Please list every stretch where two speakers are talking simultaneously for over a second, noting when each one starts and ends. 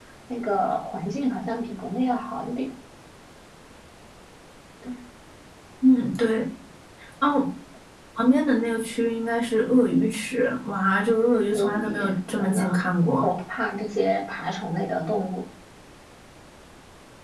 11.5-12.8

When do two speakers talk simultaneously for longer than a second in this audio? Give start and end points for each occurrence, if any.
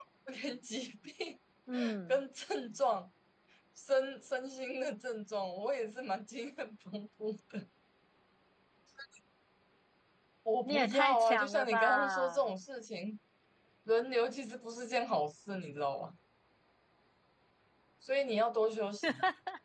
10.7-12.4

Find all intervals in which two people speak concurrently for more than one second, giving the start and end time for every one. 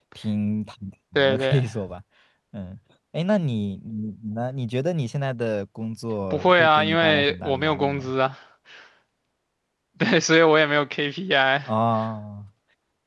6.3-8.1

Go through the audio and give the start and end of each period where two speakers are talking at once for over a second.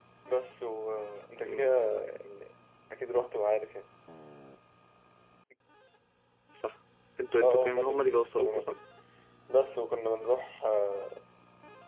7.4-8.8

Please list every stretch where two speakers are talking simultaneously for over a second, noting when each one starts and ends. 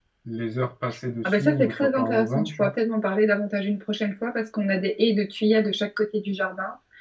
1.2-2.7

